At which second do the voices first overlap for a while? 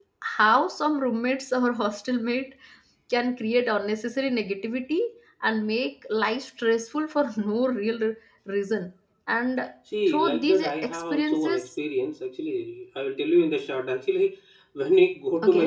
10.1 s

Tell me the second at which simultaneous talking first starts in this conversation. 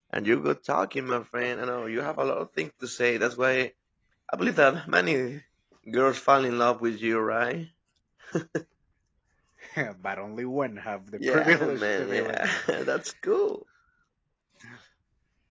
11.2 s

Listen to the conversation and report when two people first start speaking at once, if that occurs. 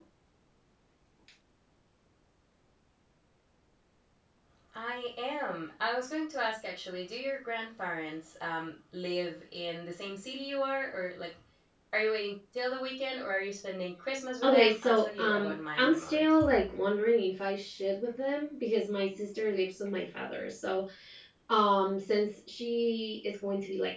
14.4 s

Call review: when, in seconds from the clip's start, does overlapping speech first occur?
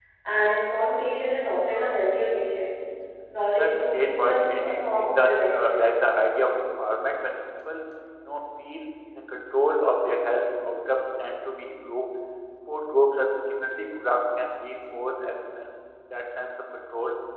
3.6 s

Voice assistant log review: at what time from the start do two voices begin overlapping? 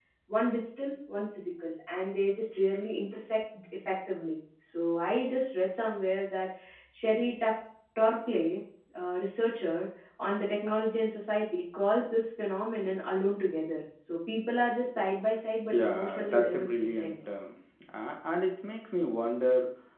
15.7 s

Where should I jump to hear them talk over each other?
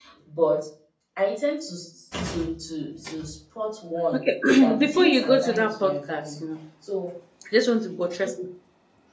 4.8 s

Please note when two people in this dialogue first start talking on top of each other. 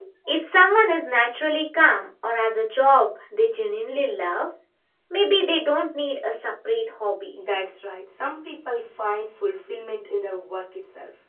none

